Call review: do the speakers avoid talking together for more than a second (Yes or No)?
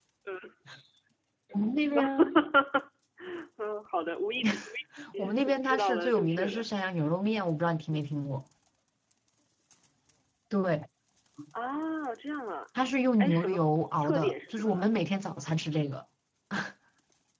No